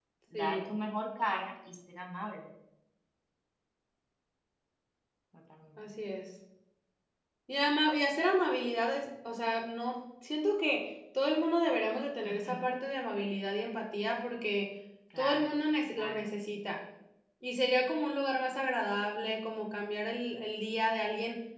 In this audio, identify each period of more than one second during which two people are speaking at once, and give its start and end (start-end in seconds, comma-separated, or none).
none